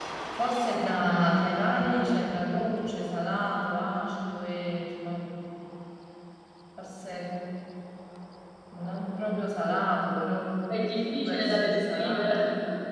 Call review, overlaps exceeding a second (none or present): present